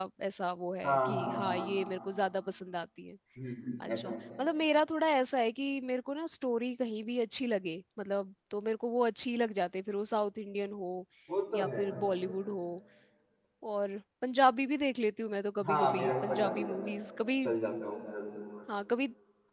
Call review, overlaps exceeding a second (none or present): present